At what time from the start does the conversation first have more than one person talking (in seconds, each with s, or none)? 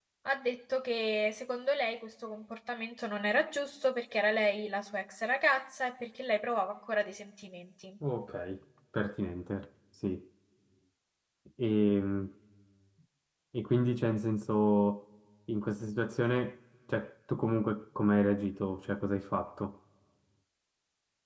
none